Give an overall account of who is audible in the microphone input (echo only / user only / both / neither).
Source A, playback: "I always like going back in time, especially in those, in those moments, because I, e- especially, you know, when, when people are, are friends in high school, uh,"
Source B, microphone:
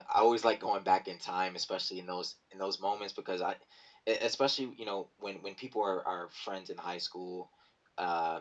echo only